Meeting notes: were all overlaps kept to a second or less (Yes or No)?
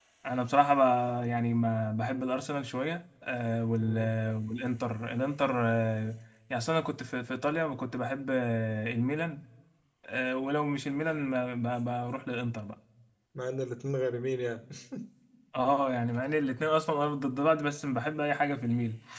Yes